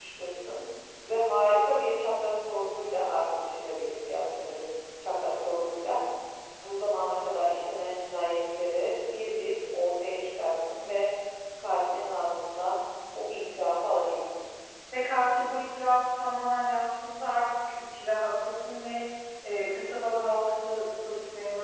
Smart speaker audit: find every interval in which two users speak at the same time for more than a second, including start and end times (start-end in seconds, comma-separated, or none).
none